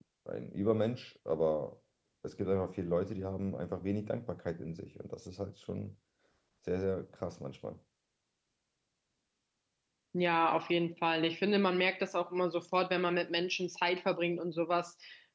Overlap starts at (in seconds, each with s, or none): none